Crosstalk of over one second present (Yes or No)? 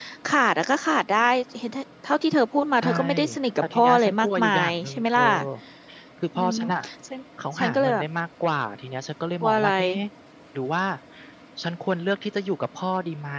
Yes